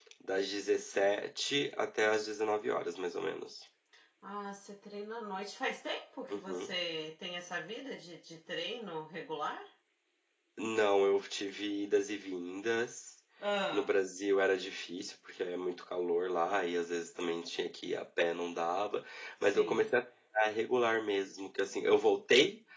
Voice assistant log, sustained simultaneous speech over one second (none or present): none